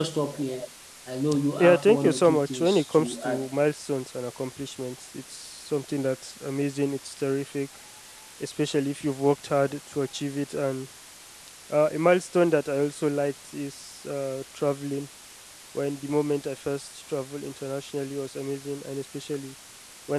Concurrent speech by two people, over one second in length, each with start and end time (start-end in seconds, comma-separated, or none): 1.6-3.5